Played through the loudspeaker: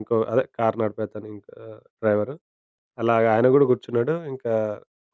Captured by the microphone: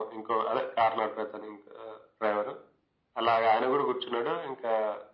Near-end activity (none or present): none